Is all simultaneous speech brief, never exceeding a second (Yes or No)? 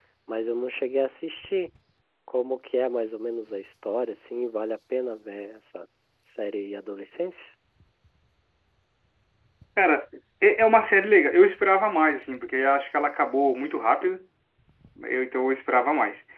Yes